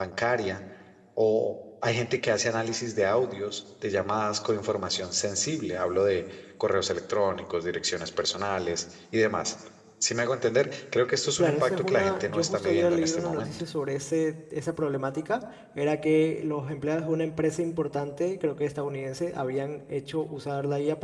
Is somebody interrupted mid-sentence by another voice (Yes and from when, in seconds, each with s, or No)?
Yes, from 11.4 s